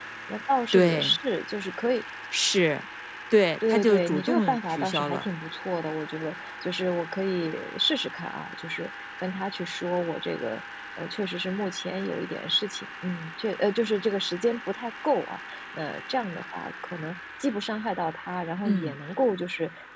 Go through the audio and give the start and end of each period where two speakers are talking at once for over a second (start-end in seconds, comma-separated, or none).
3.7-5.3